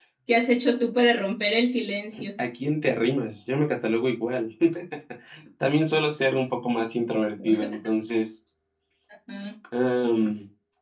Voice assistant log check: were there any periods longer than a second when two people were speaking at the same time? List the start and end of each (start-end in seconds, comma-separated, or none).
none